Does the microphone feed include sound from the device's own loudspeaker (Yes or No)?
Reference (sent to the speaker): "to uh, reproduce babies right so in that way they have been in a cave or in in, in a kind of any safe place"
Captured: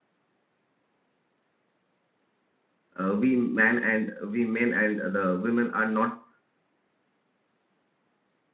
No